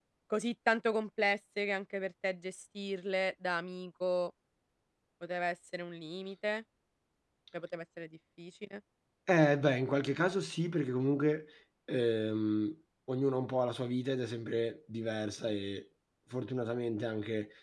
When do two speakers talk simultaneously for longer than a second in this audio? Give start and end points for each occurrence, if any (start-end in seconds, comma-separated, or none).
none